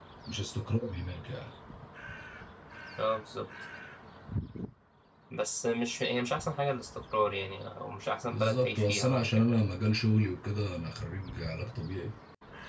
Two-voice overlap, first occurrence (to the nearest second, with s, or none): 8 s